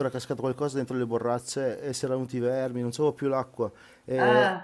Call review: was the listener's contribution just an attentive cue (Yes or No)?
Yes